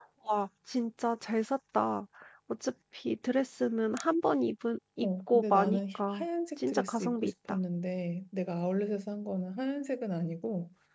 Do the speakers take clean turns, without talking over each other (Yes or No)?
No